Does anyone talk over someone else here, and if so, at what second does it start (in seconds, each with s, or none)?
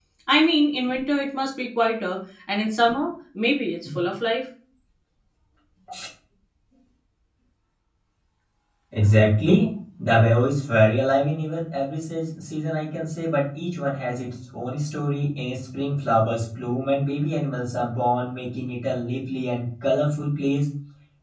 none